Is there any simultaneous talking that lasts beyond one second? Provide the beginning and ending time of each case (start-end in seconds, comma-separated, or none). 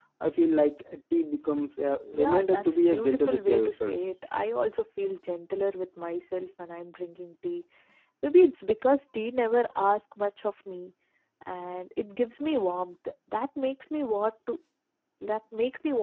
2.1-3.9